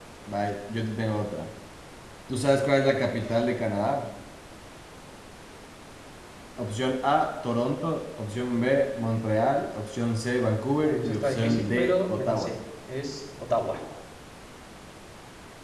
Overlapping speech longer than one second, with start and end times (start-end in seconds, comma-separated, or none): 10.7-12.6